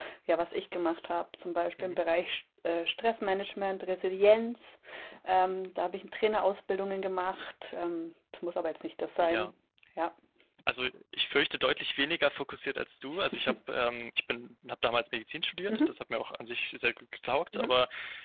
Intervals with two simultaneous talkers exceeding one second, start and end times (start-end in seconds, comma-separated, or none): none